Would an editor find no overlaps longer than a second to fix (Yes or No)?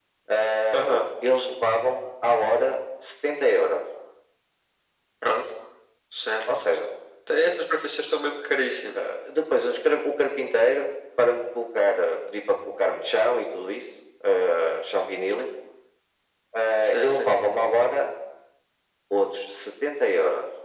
Yes